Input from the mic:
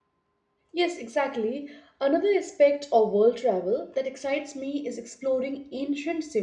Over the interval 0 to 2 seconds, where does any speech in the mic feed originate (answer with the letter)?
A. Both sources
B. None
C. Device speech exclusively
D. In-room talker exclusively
D